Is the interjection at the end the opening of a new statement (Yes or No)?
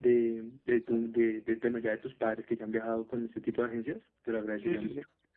Yes